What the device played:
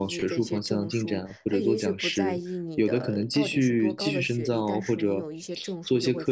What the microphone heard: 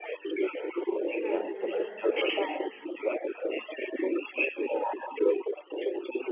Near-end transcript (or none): 感觉像